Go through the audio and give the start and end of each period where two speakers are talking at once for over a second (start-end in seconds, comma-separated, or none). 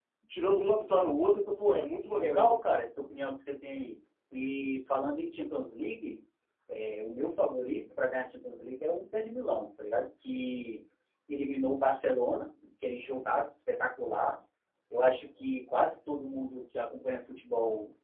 none